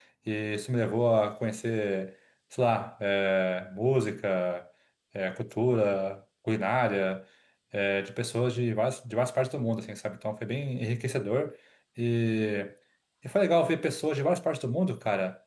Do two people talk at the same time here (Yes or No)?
No